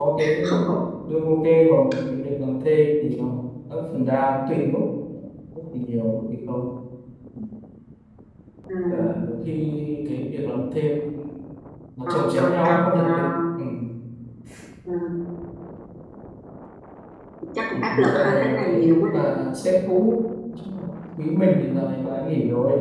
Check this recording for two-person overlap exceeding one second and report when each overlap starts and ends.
12.1-13.3, 17.7-19.2

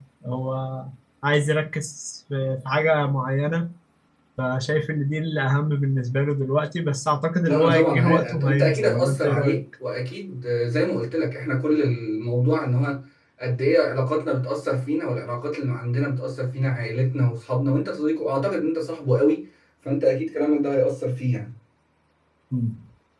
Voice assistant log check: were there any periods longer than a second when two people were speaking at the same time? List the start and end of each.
7.5-9.6

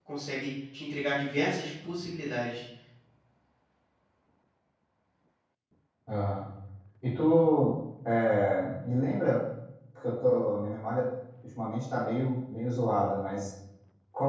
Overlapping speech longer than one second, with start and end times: none

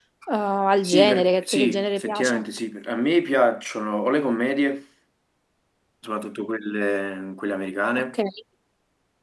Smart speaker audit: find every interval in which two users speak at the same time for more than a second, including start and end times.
0.8-2.4

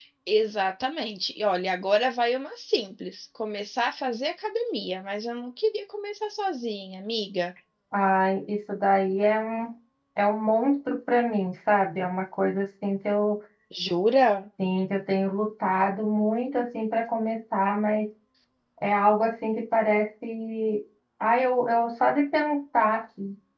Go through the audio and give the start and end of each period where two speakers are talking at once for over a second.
none

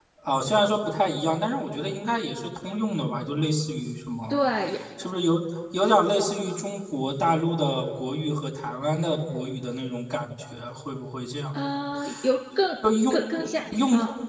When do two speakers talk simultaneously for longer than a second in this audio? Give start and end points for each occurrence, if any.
none

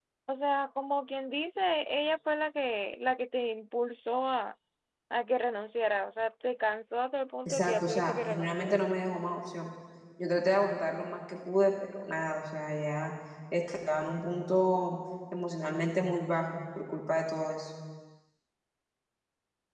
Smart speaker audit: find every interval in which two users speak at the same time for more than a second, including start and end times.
7.5-8.8

